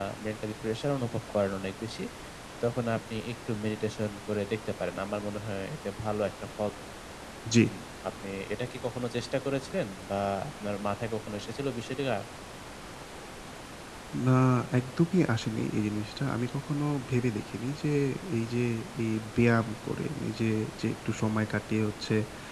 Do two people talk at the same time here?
No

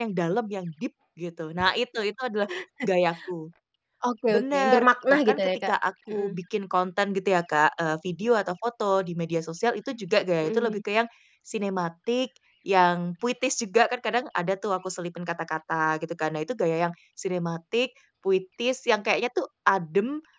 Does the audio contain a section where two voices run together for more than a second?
Yes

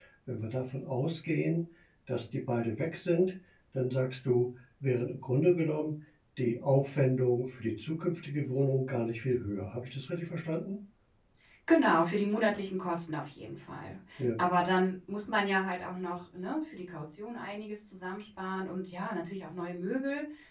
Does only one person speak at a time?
Yes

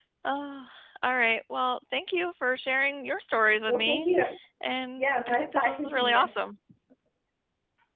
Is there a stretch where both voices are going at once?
Yes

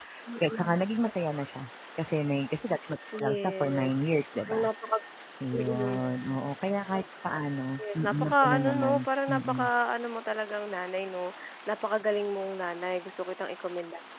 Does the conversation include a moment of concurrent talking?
Yes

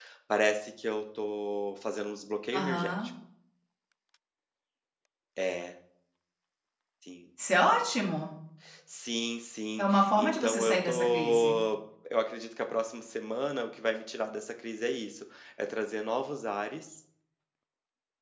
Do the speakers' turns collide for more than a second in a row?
Yes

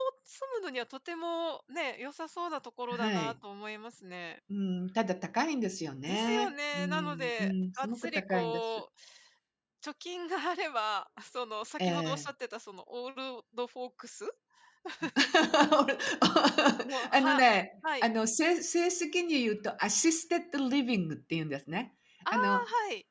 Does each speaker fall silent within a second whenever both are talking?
No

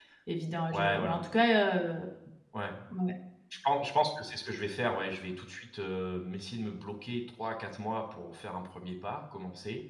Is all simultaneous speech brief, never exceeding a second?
Yes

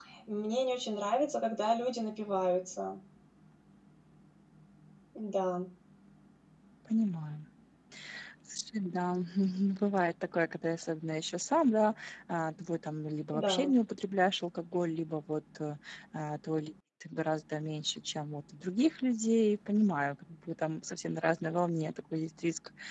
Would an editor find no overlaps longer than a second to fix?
Yes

